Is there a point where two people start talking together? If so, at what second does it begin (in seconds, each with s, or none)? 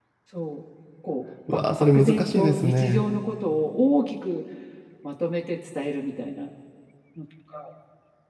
1.5 s